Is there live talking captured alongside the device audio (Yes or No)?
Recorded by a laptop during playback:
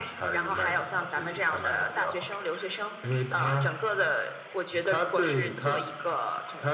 No